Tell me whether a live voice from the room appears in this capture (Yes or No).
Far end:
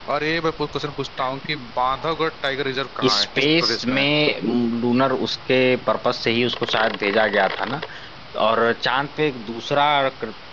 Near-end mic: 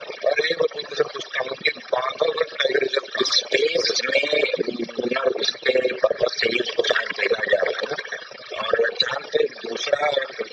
No